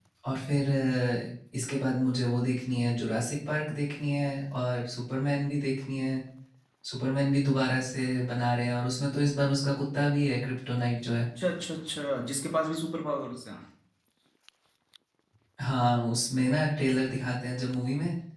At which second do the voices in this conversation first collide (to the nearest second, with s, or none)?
none